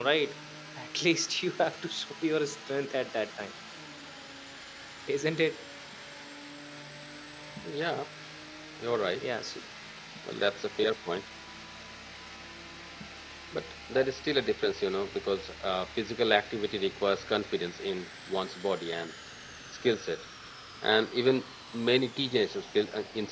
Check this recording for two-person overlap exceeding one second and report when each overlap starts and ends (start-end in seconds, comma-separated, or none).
none